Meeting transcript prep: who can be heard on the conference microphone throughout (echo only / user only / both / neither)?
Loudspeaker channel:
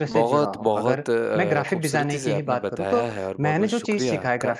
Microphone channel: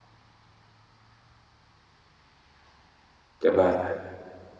user only